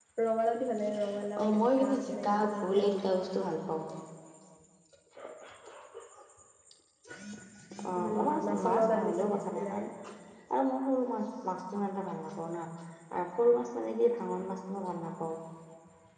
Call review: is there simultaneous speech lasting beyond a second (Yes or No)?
Yes